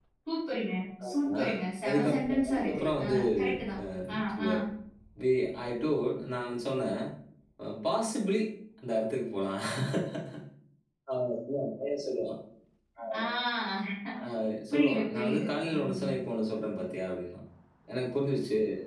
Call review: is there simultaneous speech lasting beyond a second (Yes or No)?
Yes